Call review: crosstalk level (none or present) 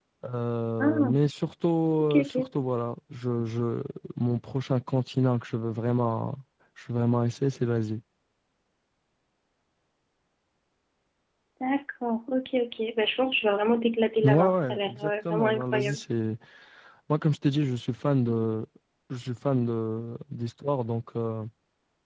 present